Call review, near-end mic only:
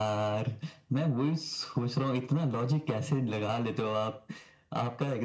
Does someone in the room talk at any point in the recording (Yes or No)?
No